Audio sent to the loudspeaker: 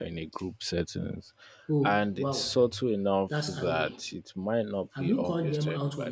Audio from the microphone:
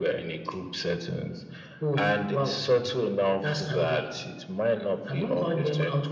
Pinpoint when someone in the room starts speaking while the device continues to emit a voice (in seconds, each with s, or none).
none